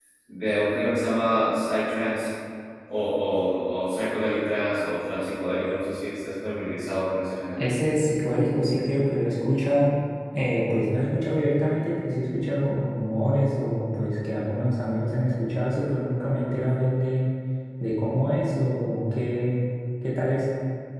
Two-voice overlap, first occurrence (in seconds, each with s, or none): none